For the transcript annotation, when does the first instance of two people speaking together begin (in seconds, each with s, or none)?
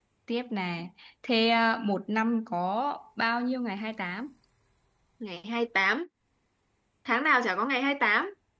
none